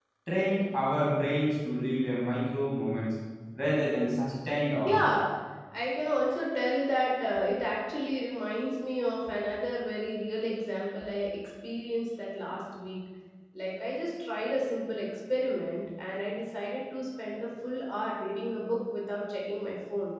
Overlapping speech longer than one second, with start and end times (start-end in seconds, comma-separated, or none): none